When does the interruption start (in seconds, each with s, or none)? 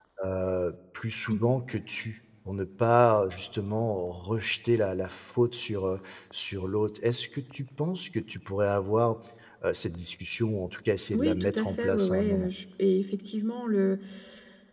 11.1 s